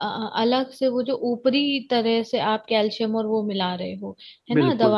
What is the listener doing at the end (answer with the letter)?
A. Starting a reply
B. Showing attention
B